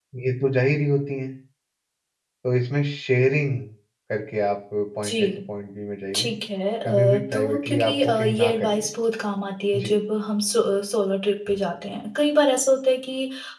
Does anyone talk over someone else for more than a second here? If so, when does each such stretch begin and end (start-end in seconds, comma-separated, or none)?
6.8-8.8